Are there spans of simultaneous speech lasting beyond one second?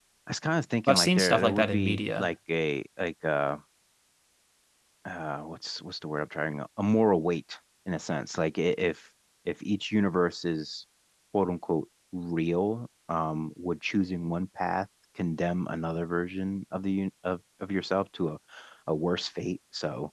Yes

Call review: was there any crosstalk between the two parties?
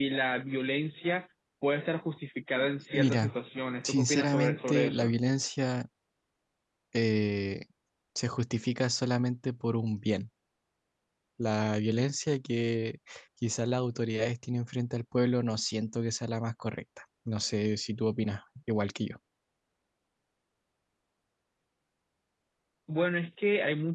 Yes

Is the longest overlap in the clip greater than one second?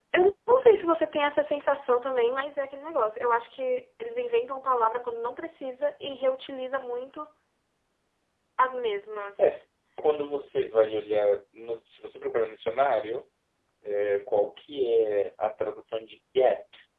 No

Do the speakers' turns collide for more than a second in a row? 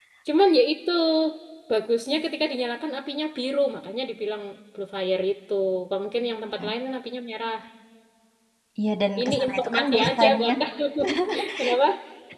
Yes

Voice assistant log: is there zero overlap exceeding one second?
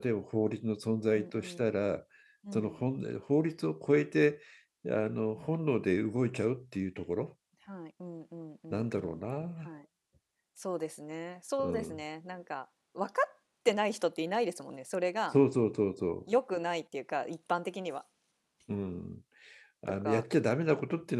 Yes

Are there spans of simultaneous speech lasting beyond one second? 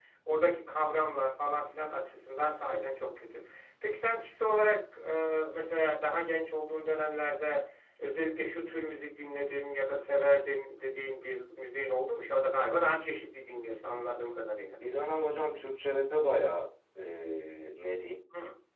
No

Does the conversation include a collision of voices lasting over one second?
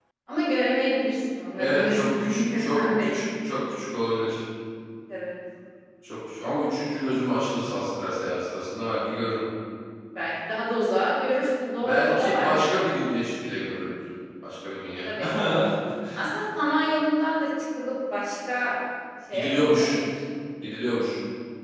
Yes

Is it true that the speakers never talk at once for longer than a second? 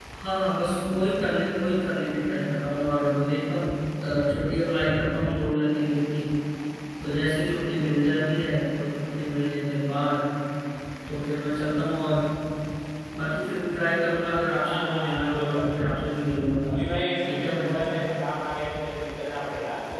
No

